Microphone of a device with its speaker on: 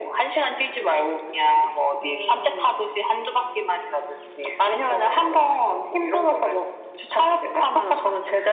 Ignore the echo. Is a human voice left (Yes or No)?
No